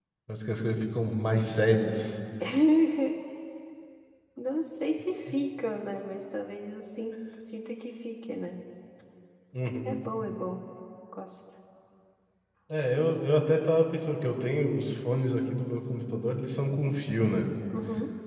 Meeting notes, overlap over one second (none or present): none